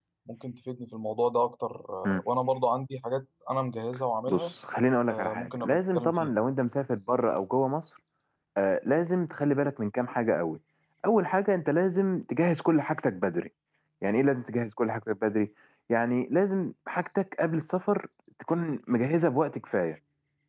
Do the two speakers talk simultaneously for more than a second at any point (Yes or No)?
Yes